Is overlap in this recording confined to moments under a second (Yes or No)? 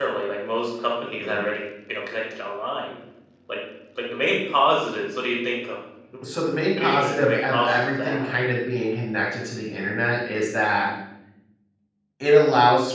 No